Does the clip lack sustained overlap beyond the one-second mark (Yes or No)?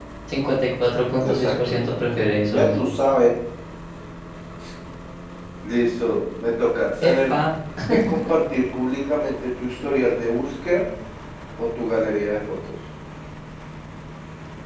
No